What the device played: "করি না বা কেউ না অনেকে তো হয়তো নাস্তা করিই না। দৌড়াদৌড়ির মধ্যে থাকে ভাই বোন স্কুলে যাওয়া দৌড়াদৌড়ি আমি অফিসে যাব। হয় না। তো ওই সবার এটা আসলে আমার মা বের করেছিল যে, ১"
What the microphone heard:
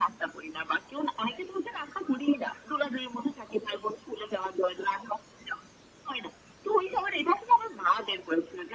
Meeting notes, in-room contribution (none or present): none